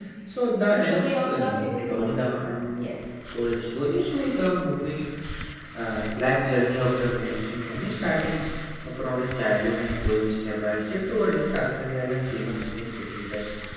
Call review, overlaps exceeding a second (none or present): present